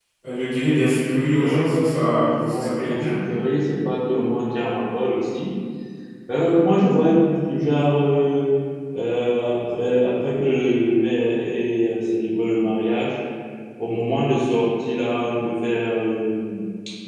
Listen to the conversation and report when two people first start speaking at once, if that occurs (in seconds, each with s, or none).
1.4 s